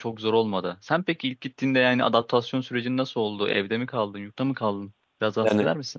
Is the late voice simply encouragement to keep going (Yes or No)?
No